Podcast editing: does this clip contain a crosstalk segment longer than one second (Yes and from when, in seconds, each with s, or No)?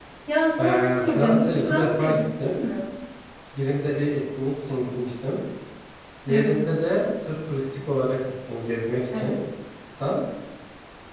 Yes, from 0.6 s